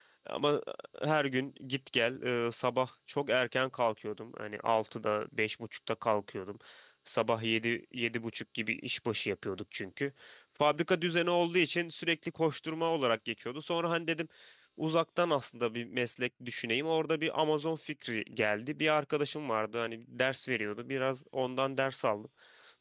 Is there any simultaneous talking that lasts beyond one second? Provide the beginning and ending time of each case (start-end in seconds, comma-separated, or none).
none